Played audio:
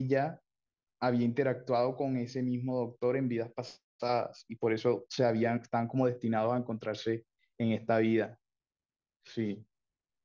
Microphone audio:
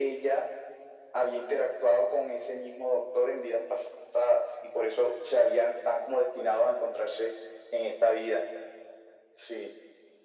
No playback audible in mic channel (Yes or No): No